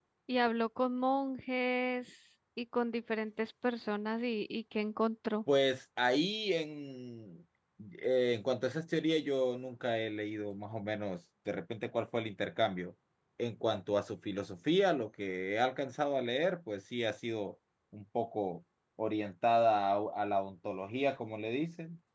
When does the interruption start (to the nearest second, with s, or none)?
none